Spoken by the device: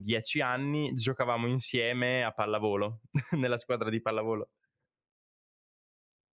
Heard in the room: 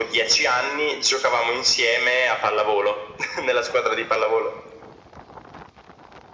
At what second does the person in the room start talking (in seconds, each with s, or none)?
none